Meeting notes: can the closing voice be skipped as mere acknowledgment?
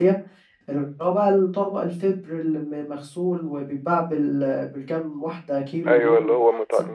No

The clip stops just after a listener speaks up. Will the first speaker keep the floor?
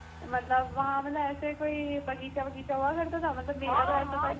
No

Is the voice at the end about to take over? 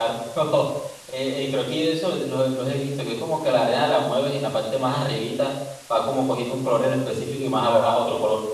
Yes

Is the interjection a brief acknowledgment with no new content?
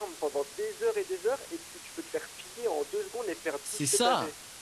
No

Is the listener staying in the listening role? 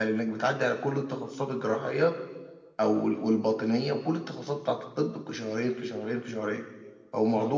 Yes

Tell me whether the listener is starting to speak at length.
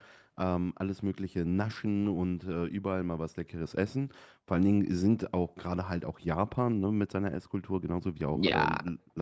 No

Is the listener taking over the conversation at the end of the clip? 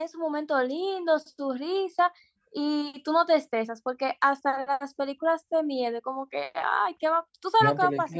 Yes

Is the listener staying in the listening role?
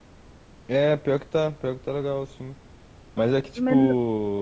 Yes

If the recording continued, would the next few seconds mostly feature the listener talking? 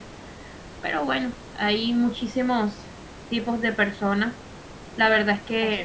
No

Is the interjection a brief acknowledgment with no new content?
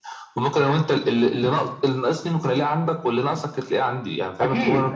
No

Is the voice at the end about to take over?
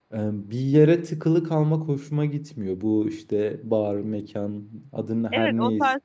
Yes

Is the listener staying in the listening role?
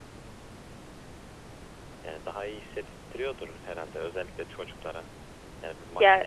Yes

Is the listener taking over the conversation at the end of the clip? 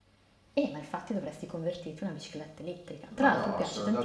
Yes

